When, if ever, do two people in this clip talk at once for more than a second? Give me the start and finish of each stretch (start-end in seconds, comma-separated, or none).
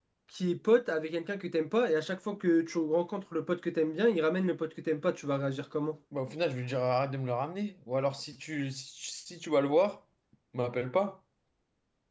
none